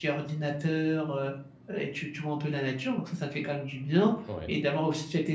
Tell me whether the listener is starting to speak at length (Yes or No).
No